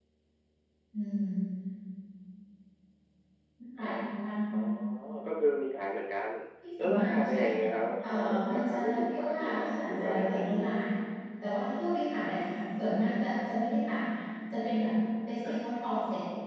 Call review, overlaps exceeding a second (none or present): present